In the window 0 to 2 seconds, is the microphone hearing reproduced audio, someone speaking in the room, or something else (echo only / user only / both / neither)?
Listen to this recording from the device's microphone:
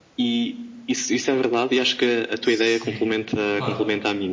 echo only